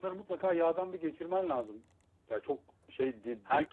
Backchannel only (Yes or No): Yes